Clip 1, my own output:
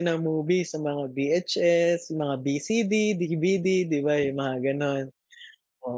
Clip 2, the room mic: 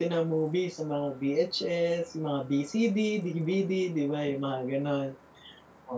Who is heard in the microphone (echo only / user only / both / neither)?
echo only